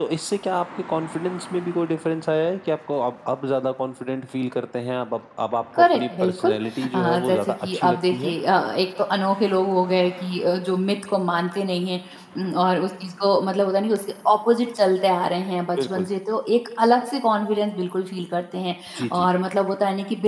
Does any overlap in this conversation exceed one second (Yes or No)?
Yes